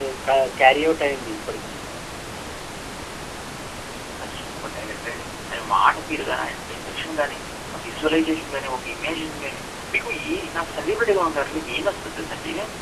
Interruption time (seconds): none

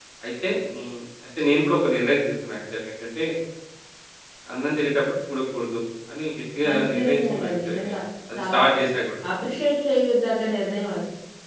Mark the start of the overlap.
6.7 s

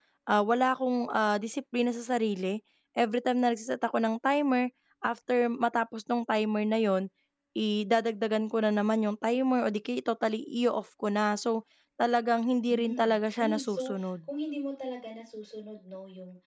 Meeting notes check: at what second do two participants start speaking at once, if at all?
12.7 s

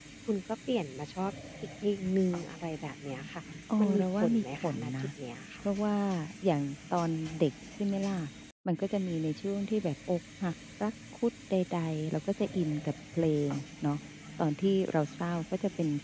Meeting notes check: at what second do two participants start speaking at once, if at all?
3.8 s

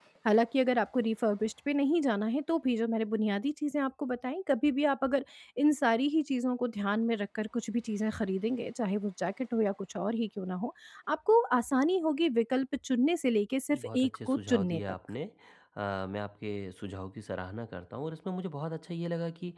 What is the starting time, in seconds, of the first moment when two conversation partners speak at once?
13.7 s

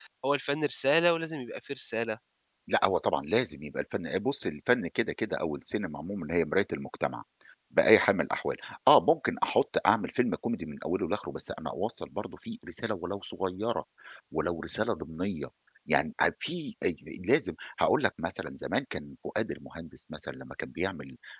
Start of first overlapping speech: none

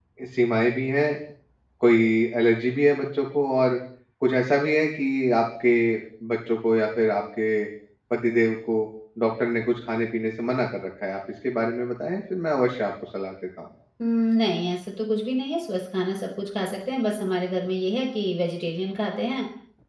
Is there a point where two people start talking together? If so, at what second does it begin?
none

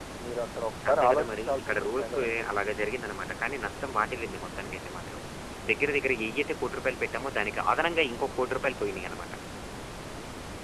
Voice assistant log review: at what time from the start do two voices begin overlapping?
0.9 s

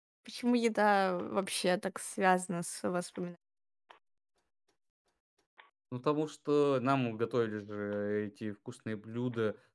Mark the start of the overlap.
none

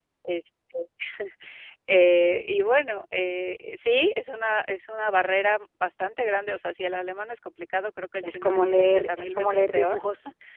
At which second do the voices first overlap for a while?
8.2 s

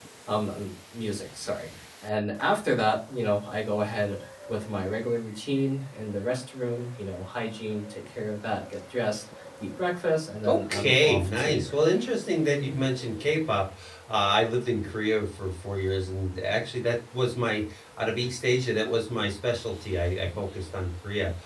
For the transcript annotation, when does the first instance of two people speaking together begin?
10.4 s

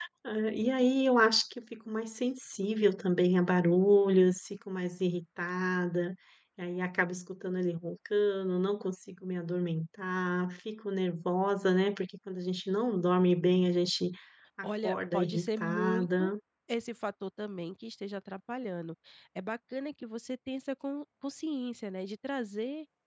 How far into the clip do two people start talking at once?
14.6 s

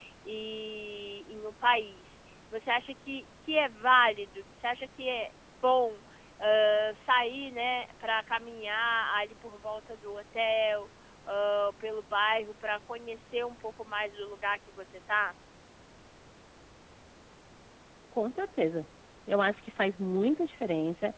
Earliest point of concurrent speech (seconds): none

